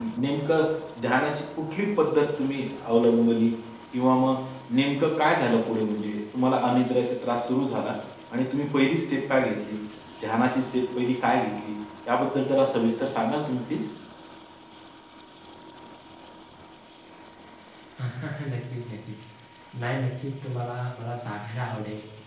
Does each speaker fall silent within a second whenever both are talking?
Yes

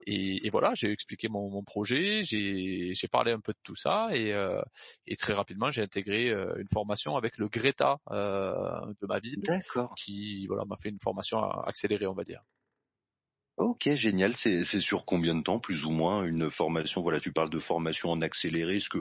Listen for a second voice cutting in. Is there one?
No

